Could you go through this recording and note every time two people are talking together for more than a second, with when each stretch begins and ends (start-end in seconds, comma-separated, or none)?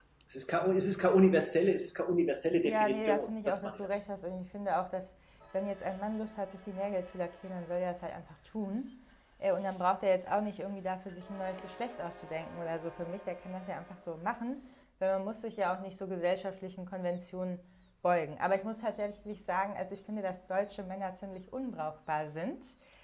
2.6-3.9